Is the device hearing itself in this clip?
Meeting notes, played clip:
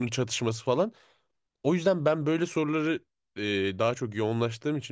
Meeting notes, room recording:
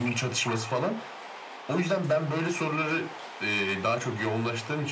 Yes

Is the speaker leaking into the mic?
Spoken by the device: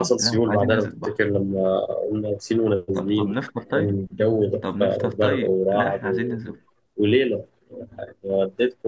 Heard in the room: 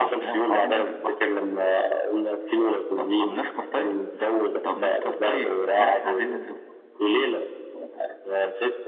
Yes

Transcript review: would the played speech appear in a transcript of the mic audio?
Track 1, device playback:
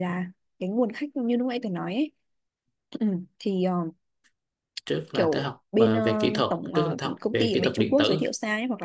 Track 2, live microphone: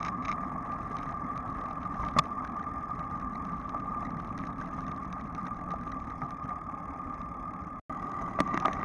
No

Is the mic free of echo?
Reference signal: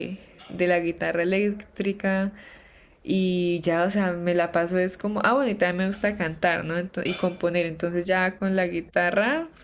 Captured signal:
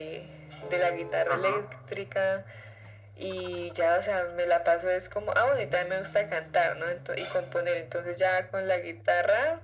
No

